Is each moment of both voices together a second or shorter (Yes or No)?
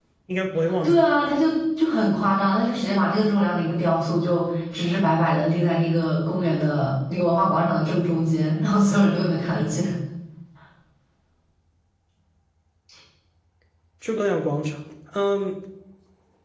Yes